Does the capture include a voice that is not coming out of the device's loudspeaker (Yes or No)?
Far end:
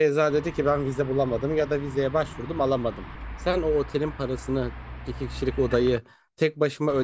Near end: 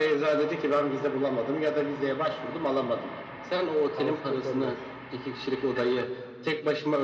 Yes